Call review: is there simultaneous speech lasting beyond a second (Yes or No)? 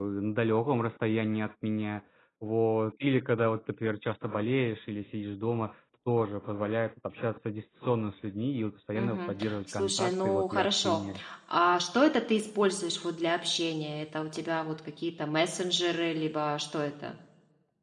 Yes